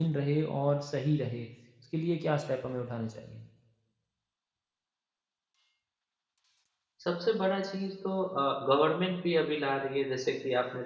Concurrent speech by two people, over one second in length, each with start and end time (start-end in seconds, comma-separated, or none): none